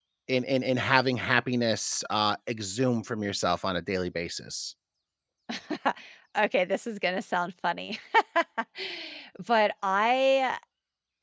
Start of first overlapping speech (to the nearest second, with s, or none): none